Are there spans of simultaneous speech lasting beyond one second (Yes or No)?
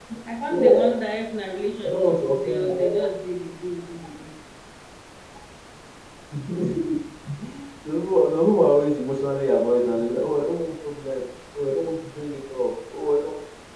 Yes